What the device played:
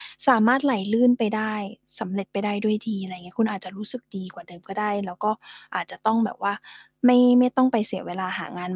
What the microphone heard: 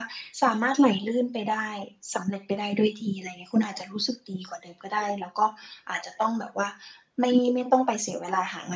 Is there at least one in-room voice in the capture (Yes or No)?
No